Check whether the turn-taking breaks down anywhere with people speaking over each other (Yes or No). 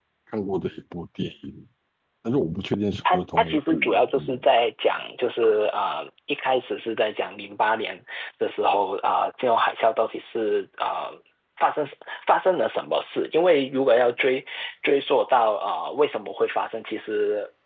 Yes